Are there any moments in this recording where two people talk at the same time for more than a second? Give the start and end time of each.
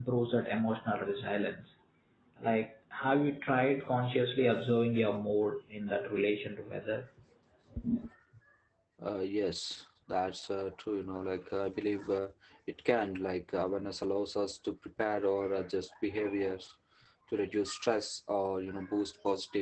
none

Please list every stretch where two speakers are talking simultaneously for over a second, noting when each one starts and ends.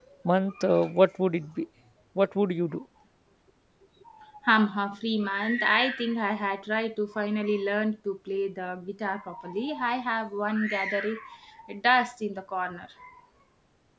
none

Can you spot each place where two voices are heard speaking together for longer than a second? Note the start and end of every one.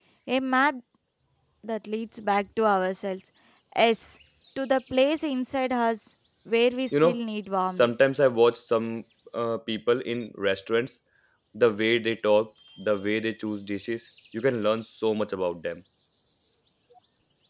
none

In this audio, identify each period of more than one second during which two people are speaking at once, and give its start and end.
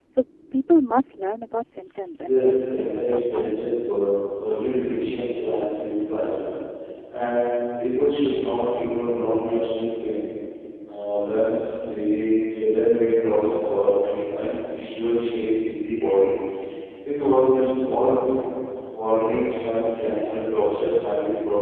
2.2-4.1

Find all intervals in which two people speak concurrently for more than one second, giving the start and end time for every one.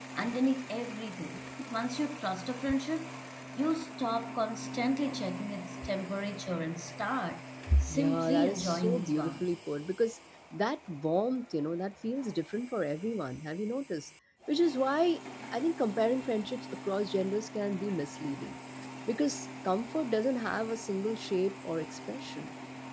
7.9-9.5

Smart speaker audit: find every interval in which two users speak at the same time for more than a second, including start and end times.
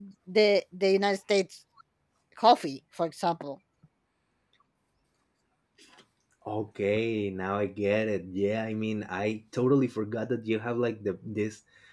none

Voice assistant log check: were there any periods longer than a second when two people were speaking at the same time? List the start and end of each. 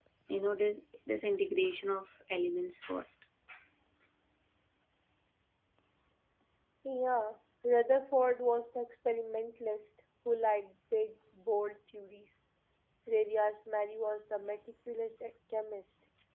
none

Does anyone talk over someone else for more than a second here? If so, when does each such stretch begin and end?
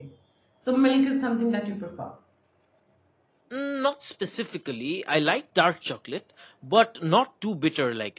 none

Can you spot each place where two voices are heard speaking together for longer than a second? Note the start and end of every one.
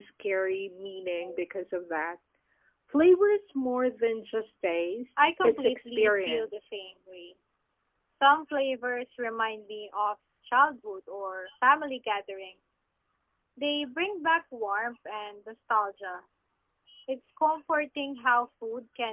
5.4-6.6

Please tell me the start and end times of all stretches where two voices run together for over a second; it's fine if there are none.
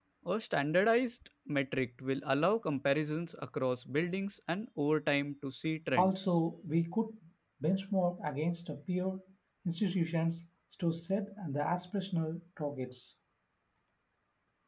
none

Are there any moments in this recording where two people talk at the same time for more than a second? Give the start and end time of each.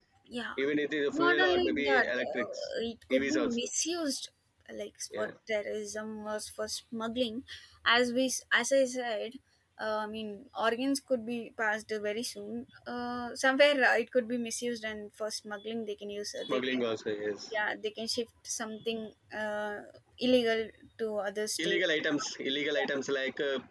1.1-2.7

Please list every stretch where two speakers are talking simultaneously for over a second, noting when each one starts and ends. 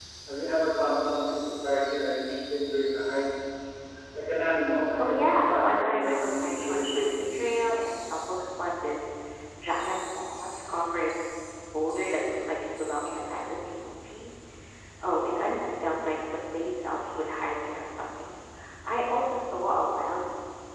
5.0-7.5

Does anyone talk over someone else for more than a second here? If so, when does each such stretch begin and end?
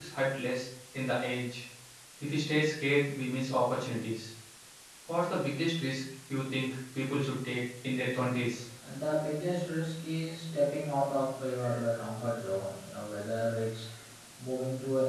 none

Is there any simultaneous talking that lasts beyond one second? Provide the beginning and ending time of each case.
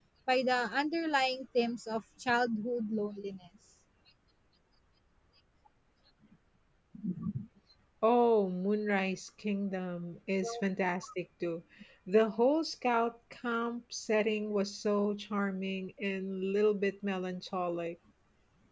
none

